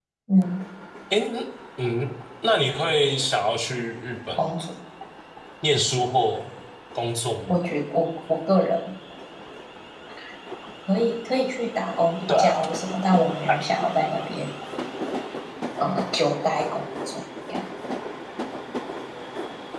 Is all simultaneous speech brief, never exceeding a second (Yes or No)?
Yes